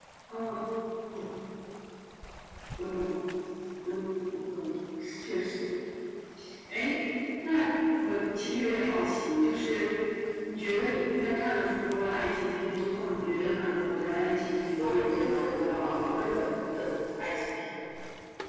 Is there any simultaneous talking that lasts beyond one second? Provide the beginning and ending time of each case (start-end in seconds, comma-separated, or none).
14.8-16.3